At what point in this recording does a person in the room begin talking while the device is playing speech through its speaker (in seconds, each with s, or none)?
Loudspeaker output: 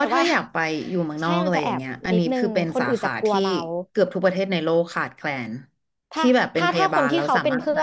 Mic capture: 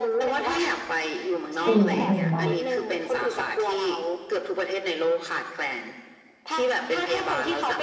1.6 s